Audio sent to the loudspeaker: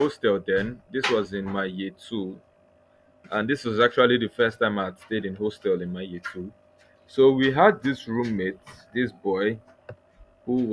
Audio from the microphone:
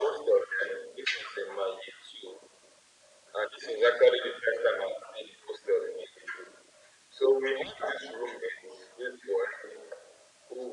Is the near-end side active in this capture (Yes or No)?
No